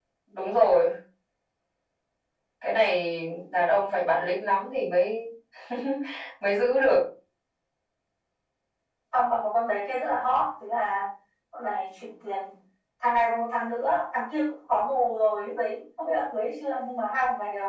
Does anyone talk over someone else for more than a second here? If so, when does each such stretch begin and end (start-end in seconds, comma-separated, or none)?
none